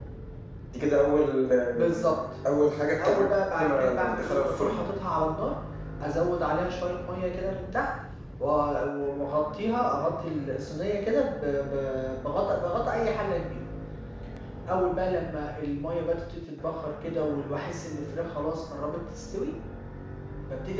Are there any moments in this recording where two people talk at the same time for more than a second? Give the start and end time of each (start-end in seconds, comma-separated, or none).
3.0-4.9